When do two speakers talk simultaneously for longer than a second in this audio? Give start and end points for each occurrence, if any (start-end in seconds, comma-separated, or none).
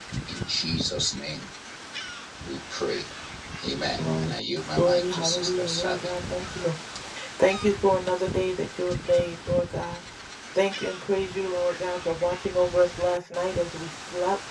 4.8-6.1